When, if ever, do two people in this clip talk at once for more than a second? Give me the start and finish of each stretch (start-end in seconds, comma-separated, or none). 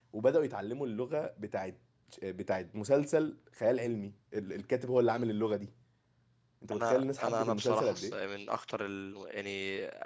6.8-8.2